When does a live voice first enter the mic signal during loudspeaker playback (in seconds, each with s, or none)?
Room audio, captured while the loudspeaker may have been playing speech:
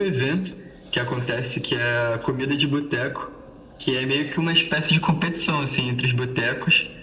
none